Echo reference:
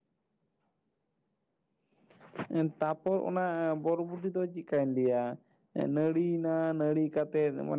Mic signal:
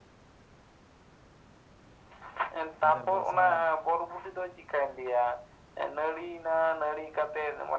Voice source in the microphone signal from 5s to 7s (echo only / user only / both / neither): echo only